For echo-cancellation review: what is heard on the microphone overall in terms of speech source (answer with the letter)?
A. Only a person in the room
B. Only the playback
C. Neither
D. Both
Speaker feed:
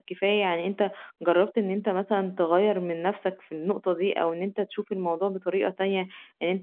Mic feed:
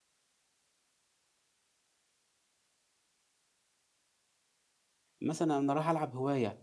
A